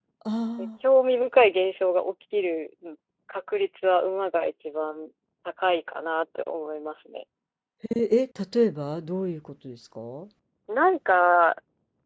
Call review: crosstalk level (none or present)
none